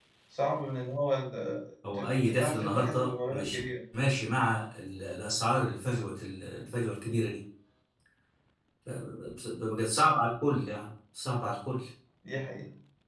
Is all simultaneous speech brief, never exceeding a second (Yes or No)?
No